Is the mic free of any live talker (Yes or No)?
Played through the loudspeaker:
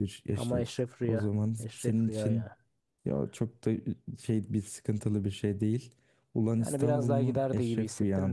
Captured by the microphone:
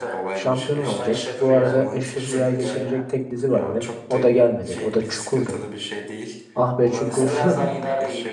No